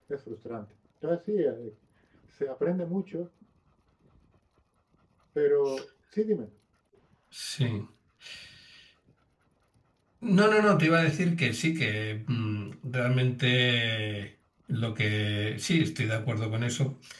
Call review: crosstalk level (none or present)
none